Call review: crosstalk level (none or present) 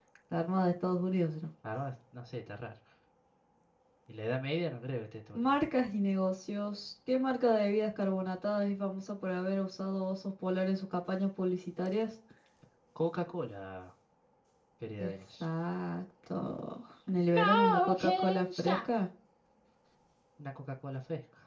present